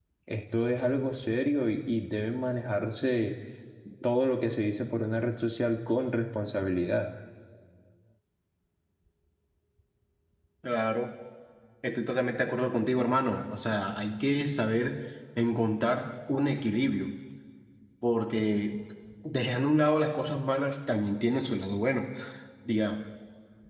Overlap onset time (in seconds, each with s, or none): none